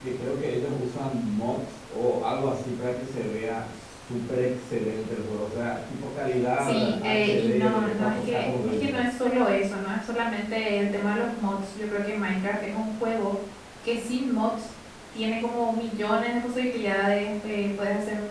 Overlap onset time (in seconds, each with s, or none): 6.6 s